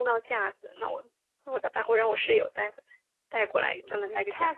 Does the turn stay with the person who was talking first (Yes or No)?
No